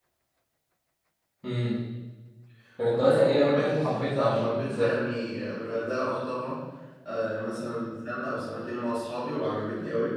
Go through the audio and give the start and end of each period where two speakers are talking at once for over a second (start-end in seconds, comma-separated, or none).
2.9-4.9